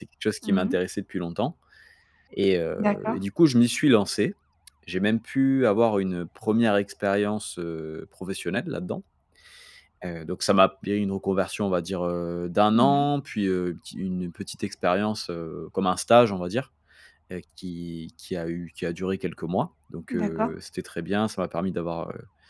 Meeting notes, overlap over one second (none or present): none